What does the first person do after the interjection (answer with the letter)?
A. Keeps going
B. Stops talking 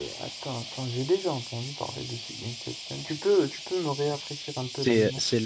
B